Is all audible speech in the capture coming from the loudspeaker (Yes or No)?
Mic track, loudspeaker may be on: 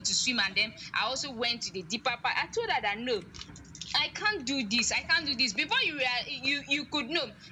Yes